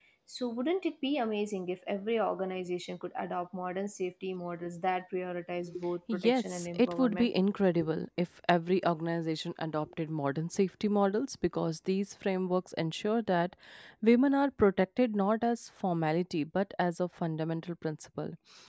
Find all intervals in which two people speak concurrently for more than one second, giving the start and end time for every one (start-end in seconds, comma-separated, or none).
6.1-7.3